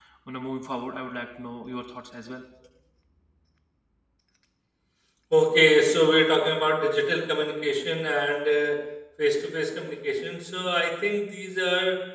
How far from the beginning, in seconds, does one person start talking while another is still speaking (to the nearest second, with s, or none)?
none